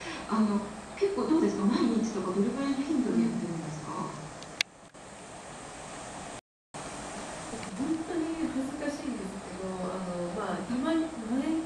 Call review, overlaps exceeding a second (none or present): none